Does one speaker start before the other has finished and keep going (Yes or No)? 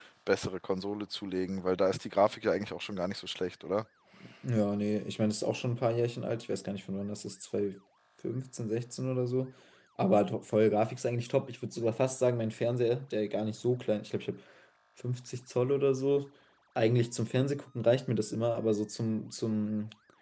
No